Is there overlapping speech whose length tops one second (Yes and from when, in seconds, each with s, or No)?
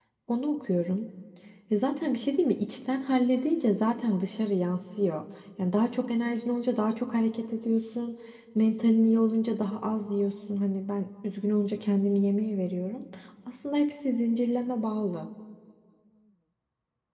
No